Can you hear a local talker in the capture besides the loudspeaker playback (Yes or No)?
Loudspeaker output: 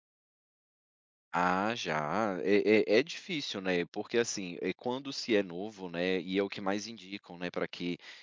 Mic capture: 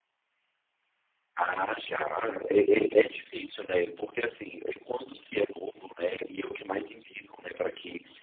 No